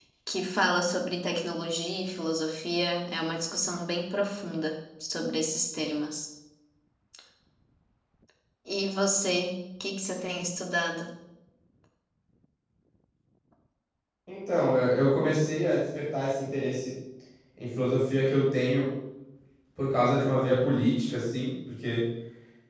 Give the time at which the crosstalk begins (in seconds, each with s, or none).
none